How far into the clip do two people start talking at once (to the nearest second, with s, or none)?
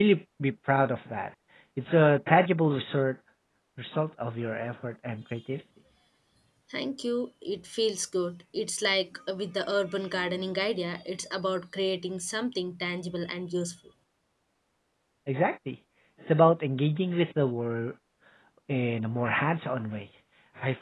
none